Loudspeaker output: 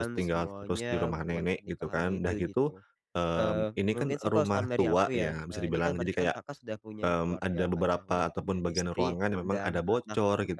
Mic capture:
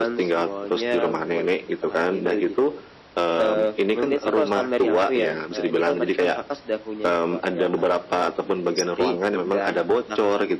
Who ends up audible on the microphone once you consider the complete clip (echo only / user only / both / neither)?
echo only